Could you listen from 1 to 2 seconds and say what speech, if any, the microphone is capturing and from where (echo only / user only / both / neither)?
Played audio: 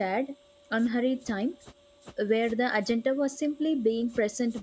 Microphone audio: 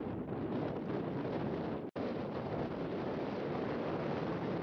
neither